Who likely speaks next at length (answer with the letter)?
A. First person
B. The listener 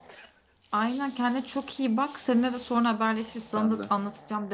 A